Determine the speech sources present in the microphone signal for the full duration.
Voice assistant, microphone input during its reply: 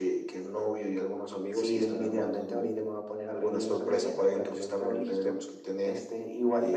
echo only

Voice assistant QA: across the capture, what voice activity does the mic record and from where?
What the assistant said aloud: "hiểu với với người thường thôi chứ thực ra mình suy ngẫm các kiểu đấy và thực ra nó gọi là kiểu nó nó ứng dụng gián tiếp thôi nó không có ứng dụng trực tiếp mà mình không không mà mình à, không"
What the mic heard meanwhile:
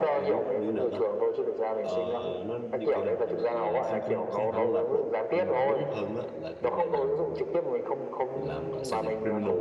both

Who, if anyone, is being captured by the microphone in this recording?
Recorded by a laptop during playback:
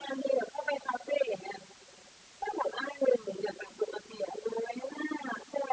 echo only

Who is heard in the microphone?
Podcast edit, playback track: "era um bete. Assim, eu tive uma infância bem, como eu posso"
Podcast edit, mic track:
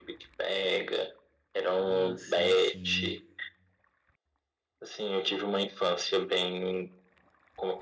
both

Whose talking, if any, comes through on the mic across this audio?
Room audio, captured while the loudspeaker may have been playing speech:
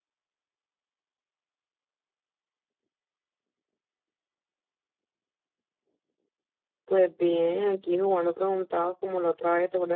user only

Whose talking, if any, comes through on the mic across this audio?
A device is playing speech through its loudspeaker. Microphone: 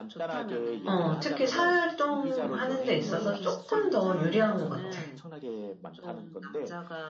both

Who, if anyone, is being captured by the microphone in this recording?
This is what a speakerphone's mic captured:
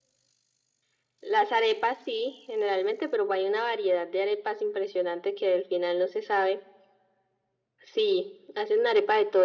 echo only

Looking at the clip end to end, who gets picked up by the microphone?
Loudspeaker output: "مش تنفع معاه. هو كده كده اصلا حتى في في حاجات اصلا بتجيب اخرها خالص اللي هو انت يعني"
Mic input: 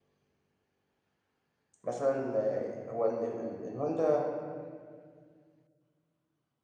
user only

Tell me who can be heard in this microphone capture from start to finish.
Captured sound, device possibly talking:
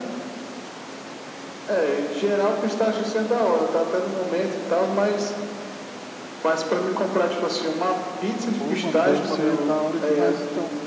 both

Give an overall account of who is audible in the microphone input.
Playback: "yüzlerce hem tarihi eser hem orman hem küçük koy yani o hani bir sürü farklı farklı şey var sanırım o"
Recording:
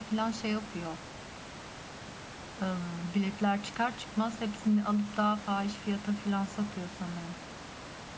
user only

